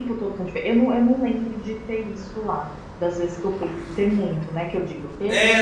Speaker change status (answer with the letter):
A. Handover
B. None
A